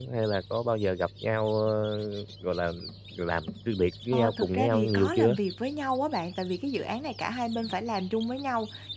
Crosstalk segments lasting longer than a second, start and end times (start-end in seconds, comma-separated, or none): 4.1-5.4